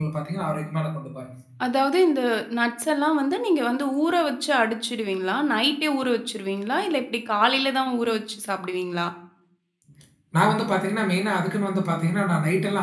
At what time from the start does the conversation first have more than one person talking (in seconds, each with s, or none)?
none